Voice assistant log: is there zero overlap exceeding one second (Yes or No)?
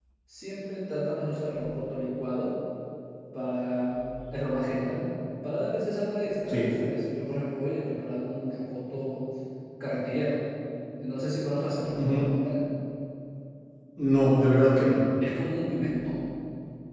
Yes